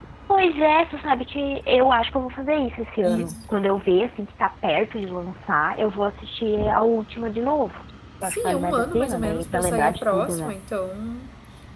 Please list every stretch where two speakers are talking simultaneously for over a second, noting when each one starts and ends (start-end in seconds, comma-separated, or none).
8.2-10.5